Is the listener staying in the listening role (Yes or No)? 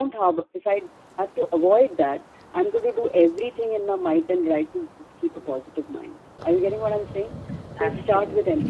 Yes